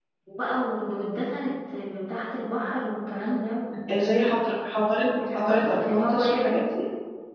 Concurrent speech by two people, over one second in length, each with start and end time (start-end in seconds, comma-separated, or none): 5.3-6.6